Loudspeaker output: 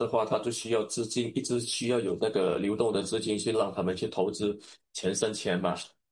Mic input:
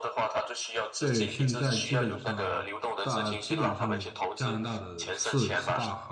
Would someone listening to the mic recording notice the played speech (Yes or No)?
Yes